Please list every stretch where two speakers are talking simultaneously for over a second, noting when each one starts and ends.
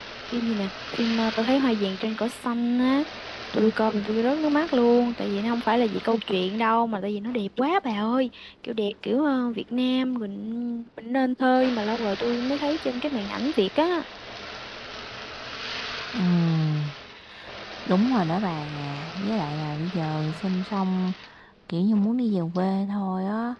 none

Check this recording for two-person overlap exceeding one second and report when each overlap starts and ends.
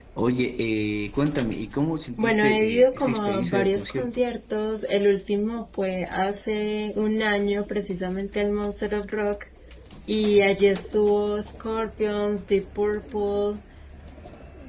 2.2-4.2

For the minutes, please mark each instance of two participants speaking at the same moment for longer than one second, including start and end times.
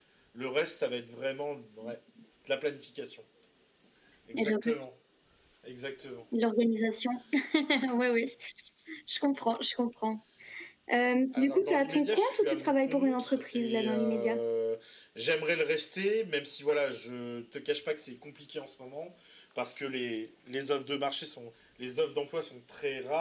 11.3-14.4

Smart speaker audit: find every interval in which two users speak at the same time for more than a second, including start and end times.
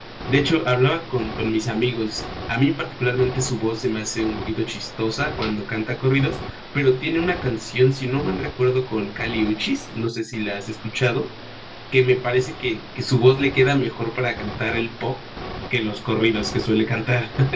none

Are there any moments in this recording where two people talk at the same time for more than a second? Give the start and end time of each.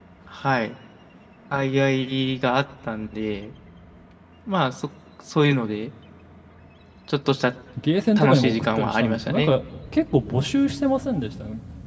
8.2-9.5

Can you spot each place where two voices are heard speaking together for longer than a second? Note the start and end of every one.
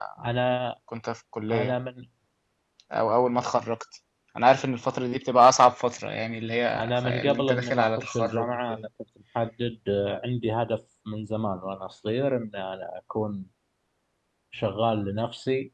6.8-8.8

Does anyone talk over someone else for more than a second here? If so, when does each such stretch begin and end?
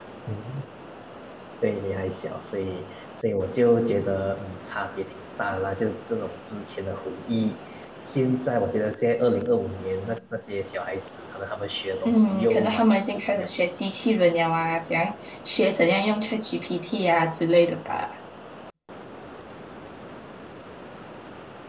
12.1-13.5

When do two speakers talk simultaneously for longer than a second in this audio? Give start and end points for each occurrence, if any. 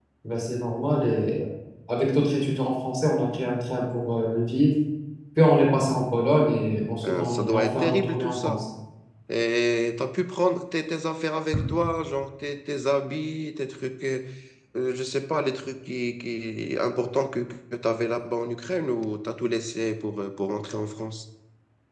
7.0-8.6

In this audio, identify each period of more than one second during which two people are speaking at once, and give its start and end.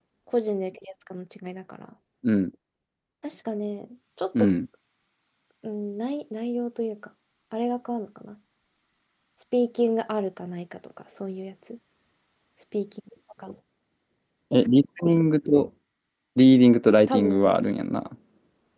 none

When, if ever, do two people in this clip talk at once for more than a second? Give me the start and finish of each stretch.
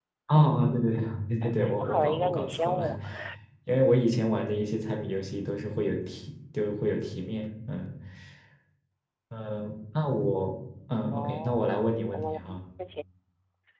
1.4-2.9, 11.1-12.6

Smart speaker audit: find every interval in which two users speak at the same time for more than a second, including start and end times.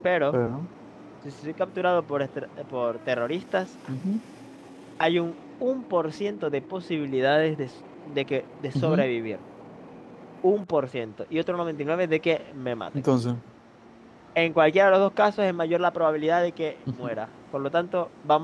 none

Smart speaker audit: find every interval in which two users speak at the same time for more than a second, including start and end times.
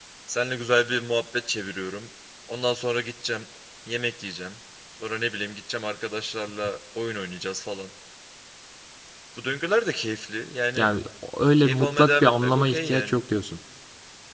11.6-13.2

